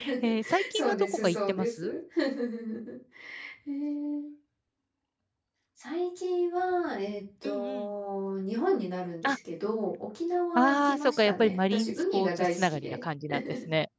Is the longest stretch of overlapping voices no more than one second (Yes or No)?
No